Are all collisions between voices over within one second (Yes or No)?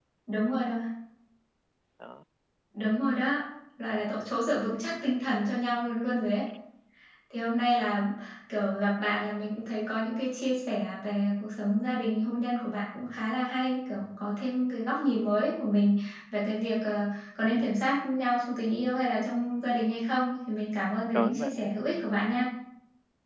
Yes